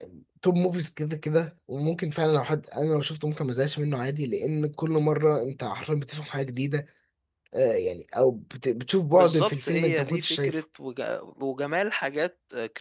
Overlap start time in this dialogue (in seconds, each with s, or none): 9.1 s